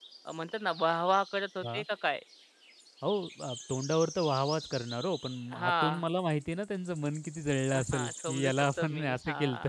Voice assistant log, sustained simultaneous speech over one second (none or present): present